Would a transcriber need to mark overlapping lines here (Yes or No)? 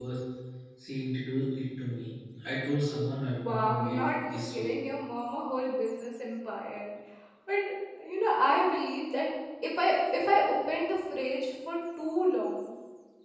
Yes